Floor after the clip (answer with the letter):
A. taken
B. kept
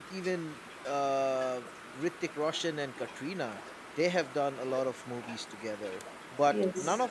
B